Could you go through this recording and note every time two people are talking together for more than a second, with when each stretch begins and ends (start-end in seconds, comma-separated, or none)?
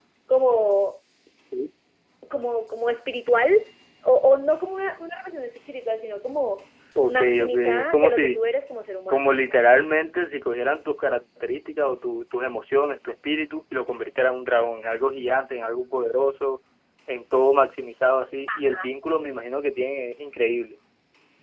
7.1-8.4